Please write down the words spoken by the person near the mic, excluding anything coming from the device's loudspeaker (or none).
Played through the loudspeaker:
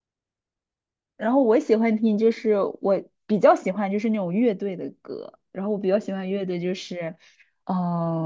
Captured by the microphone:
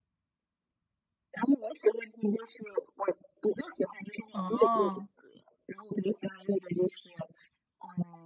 哦，